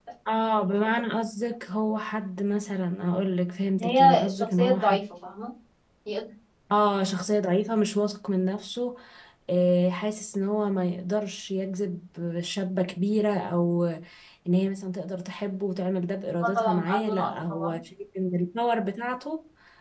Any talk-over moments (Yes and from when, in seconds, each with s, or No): Yes, from 3.8 s